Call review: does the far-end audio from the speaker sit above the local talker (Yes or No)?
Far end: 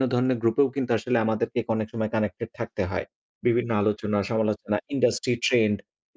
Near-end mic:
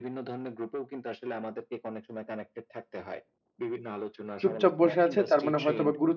No